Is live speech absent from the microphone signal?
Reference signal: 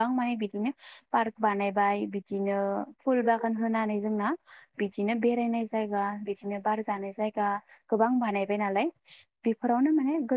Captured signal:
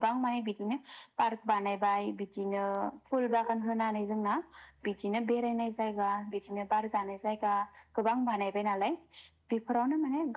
Yes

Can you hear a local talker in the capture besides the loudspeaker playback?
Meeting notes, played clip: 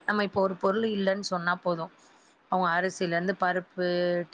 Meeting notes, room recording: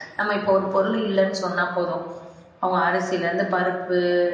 No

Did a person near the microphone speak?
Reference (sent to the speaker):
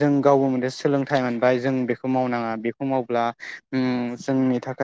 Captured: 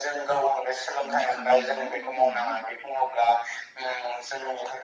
Yes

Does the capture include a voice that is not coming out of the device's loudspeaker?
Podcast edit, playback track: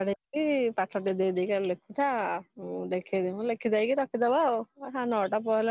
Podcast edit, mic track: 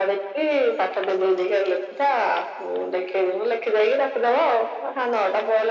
No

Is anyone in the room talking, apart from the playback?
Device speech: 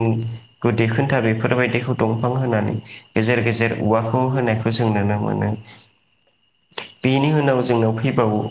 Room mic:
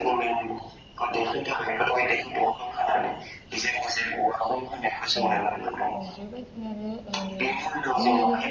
Yes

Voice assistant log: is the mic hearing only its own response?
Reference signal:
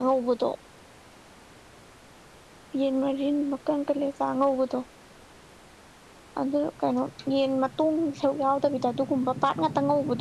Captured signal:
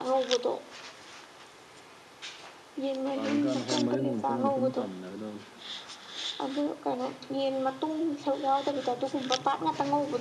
No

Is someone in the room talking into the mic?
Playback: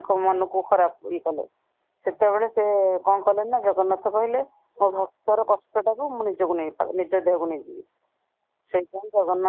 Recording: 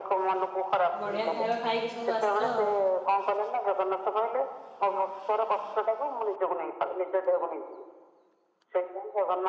Yes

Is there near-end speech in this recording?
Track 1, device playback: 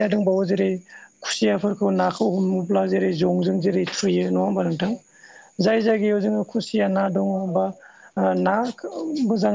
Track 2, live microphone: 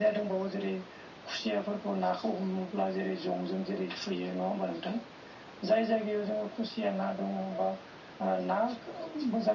No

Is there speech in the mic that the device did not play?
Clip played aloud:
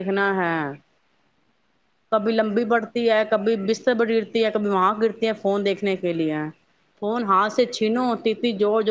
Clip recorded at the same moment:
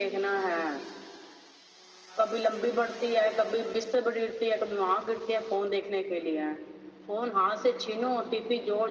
No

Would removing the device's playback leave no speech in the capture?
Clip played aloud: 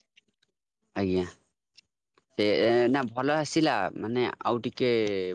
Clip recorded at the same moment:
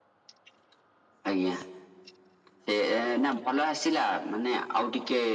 Yes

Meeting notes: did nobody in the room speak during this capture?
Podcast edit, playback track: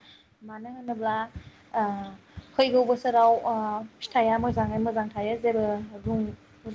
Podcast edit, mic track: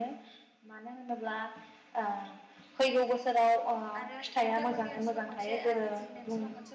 No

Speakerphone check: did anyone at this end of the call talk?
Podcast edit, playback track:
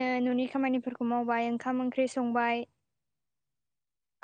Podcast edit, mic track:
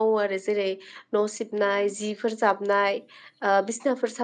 Yes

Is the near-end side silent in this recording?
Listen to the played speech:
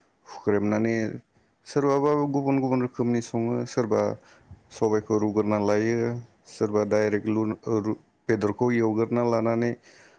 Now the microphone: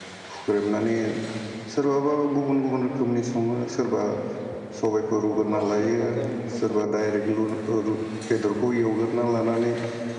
No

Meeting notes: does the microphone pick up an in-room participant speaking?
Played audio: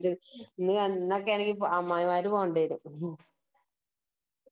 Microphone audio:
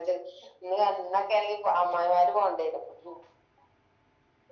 No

